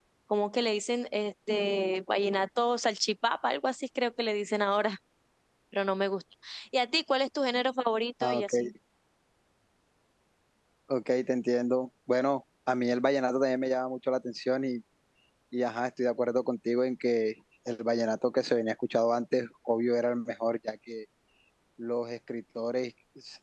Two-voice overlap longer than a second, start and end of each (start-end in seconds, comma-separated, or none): none